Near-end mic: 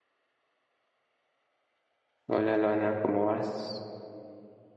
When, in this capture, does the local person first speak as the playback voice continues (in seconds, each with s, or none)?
2.3 s